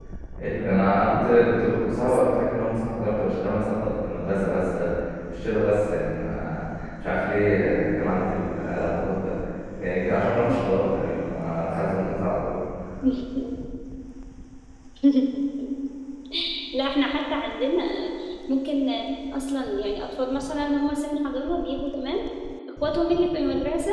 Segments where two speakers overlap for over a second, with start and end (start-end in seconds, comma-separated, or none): none